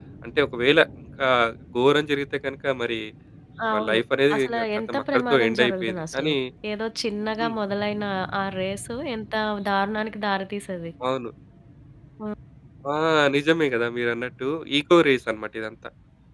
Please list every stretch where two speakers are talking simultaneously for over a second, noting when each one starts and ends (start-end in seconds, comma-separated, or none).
4.3-6.3